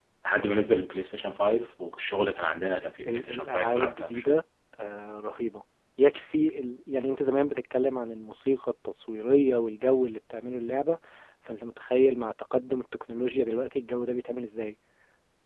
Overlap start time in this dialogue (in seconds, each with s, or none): 3.0 s